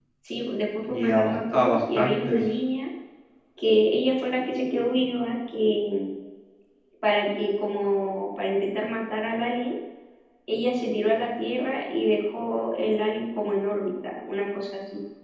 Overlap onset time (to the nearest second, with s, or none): 1 s